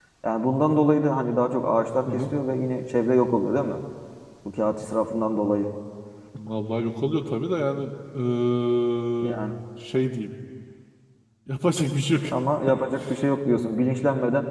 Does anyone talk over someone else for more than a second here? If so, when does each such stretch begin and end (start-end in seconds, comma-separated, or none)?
none